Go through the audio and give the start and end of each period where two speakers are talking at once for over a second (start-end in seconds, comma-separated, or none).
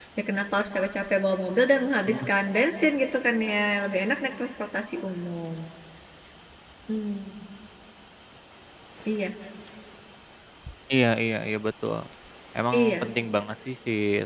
none